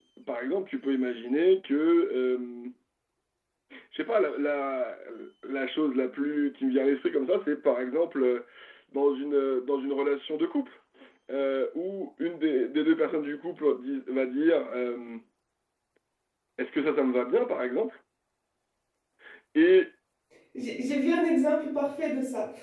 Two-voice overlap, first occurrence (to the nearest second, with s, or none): none